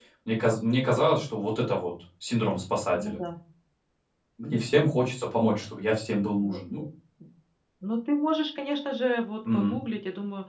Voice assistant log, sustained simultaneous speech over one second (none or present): none